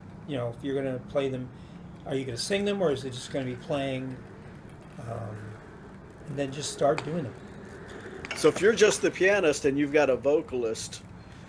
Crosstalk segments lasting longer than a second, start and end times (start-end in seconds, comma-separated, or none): none